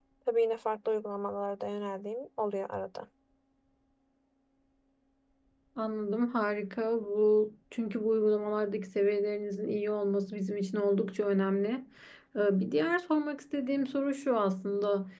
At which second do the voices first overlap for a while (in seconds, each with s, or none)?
none